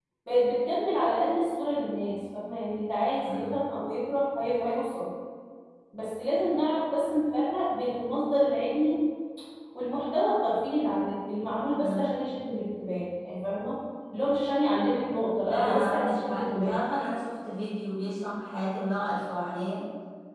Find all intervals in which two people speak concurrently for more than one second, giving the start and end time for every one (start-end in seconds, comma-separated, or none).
15.5-16.8